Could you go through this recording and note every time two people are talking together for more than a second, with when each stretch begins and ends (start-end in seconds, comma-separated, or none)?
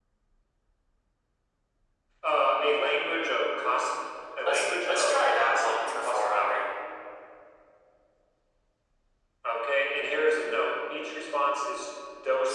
4.5-6.7